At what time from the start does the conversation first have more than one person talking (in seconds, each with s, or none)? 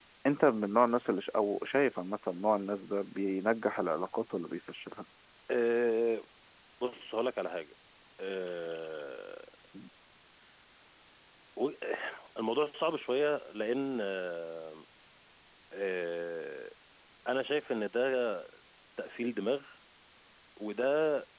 none